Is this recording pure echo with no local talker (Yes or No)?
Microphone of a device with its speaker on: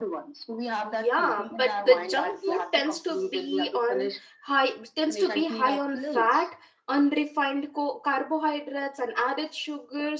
No